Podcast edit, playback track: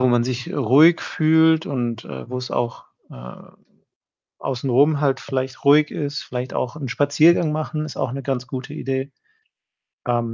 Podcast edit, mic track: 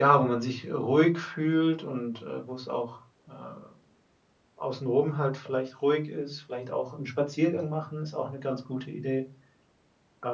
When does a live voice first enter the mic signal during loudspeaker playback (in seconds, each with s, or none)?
none